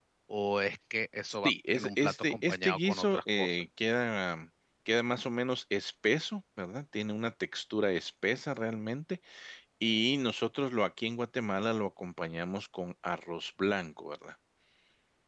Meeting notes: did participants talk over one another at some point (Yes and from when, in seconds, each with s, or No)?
Yes, from 1.4 s